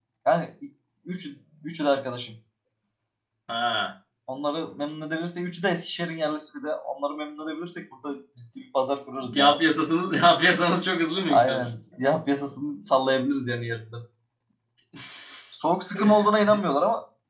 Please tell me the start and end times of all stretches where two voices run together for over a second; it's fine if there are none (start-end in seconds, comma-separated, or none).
none